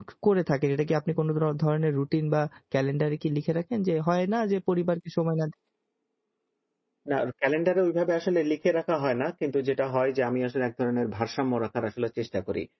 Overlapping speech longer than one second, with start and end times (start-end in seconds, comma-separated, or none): none